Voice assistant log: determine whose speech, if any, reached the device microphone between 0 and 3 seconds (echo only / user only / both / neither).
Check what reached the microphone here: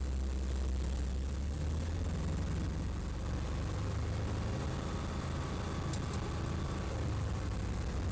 neither